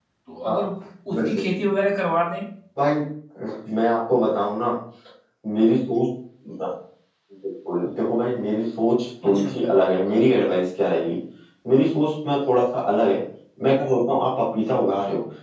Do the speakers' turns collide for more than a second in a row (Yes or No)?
No